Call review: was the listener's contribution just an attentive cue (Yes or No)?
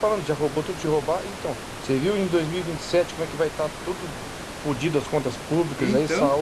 Yes